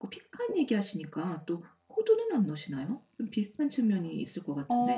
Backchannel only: No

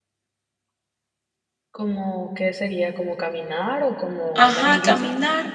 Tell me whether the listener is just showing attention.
No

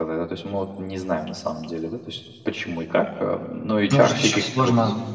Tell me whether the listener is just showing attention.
No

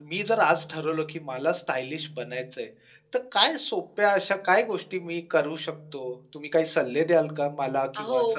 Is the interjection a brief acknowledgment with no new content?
No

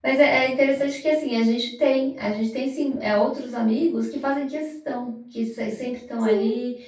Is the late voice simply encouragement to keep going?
Yes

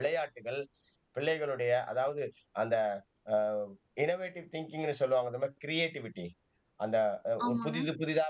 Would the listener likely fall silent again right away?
Yes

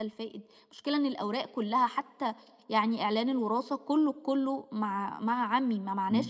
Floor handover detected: Yes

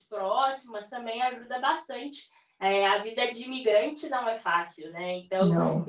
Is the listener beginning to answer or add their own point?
No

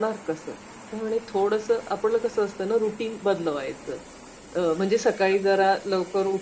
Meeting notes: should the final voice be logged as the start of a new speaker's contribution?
No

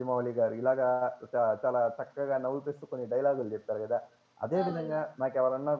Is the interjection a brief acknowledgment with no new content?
Yes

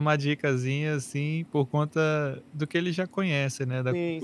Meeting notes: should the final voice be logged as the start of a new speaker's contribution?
Yes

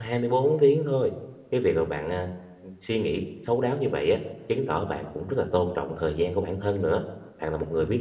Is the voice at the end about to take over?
No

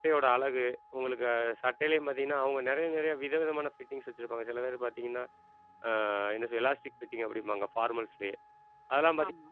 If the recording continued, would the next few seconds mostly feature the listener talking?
No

